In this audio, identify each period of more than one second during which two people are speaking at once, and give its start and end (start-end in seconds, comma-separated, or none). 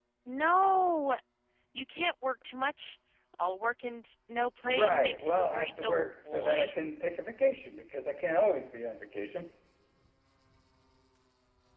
4.6-6.7